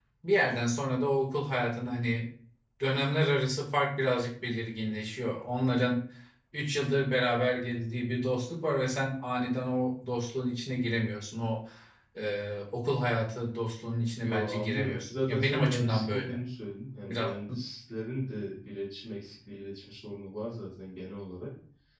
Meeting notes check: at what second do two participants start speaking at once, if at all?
14 s

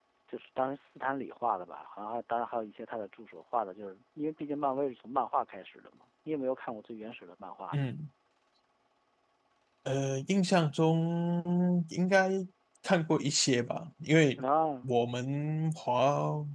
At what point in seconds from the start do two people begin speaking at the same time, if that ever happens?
none

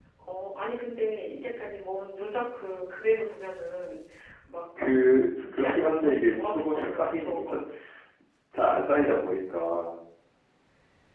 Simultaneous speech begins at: 6 s

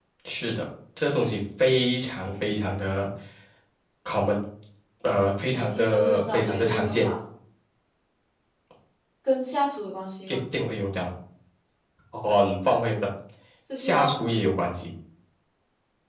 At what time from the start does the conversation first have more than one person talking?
5 s

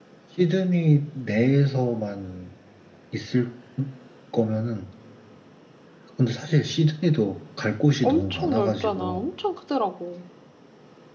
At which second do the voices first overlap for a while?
8 s

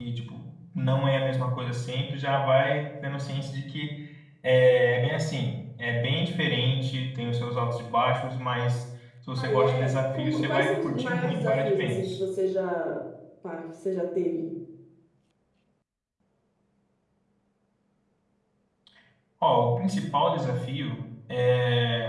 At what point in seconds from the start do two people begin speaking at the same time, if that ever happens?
9 s

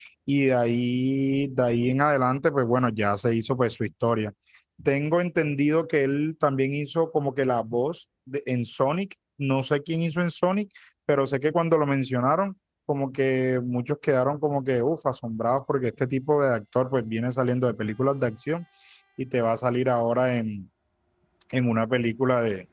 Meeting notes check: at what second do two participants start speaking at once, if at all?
none

